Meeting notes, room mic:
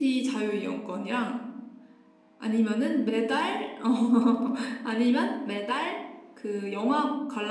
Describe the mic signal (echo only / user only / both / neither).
echo only